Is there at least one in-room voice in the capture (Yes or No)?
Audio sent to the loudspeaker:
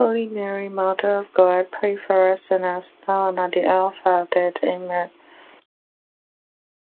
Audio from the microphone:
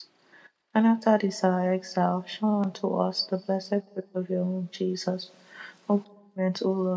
Yes